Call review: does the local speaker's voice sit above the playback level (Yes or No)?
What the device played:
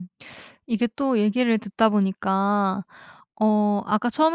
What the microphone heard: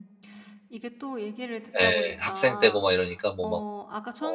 Yes